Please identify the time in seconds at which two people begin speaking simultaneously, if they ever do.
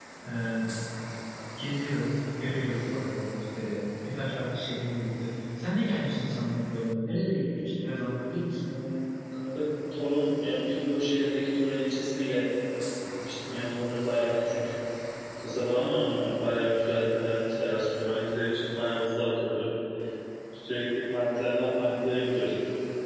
none

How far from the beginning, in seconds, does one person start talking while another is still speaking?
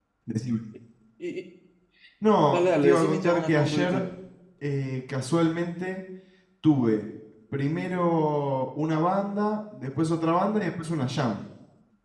2.5 s

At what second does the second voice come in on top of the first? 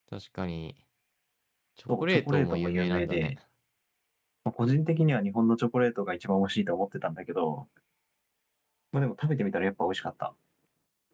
2.0 s

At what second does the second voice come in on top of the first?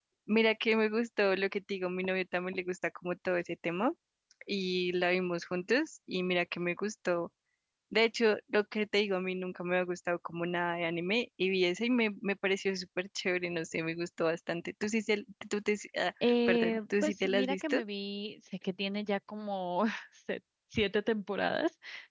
16.2 s

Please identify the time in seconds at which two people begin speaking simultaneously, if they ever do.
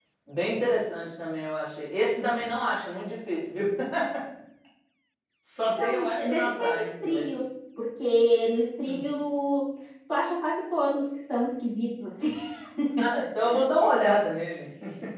5.8 s

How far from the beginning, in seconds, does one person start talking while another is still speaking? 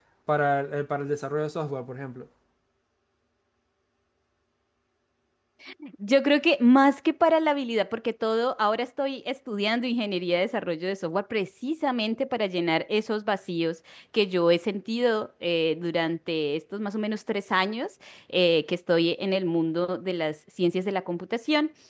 none

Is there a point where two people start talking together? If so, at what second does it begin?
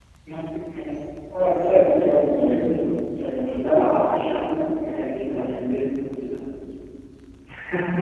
1.4 s

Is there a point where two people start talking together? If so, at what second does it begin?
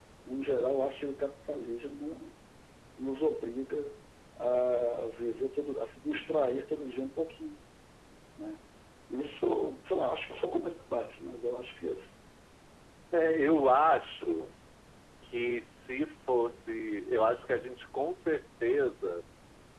none

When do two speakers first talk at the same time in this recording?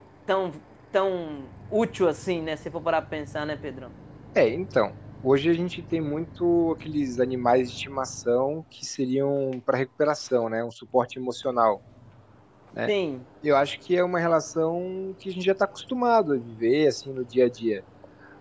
none

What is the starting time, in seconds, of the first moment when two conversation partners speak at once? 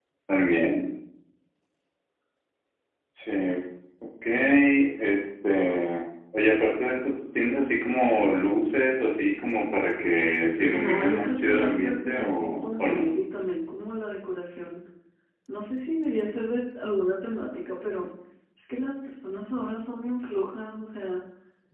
10.6 s

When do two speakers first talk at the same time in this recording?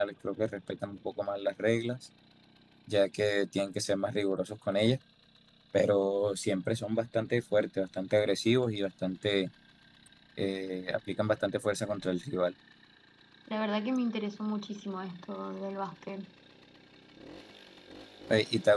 none

